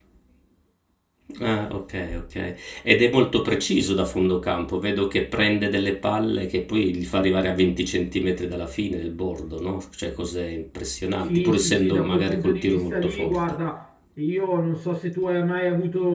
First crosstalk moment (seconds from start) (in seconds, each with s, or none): 11.3 s